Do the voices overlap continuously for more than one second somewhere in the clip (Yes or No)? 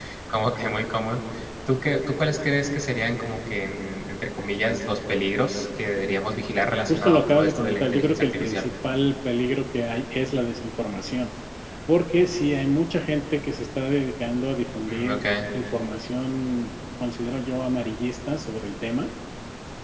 Yes